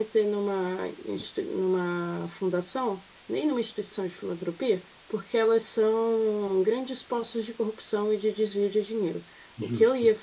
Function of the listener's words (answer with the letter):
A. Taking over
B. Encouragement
B